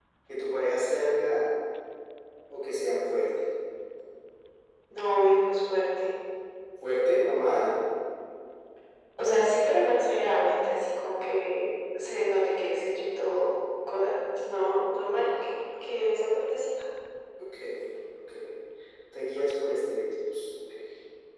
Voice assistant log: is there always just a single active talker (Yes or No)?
Yes